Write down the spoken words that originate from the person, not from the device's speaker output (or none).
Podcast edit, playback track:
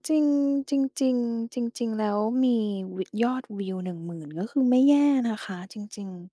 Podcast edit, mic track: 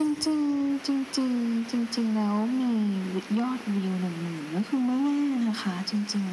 none